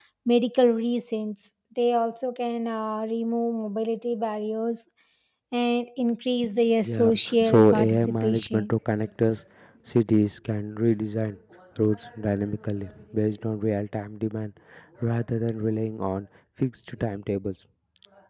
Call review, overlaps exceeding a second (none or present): present